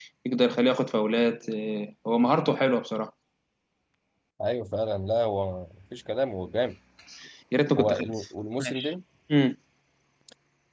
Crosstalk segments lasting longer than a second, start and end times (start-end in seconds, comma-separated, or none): none